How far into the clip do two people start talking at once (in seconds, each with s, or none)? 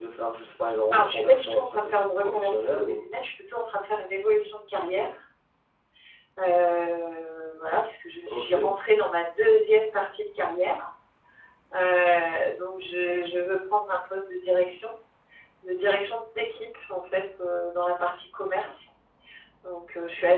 0.9 s